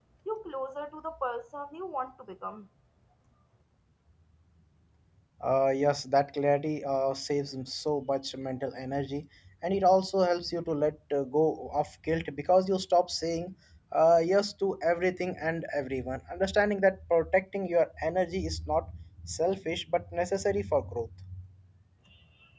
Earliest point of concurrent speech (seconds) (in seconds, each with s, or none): none